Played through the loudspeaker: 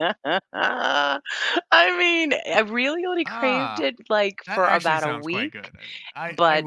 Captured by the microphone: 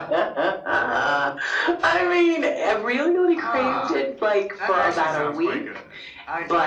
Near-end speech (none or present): none